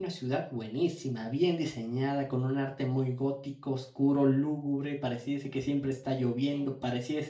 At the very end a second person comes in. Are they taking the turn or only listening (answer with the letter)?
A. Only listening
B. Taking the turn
A